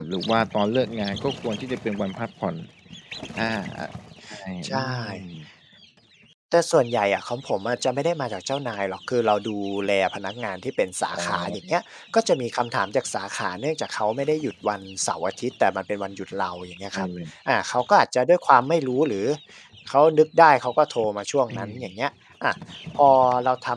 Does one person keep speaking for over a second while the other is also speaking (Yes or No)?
No